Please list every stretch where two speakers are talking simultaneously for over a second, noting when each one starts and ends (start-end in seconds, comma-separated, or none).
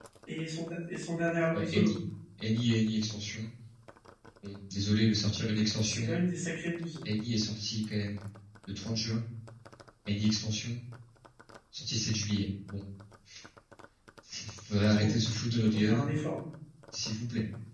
none